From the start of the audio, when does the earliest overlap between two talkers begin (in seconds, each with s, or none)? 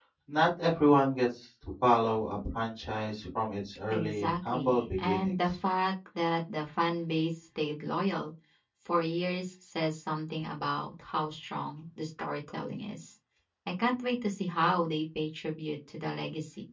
3.9 s